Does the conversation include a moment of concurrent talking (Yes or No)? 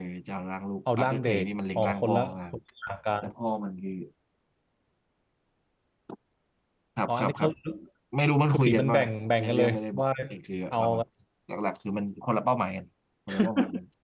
Yes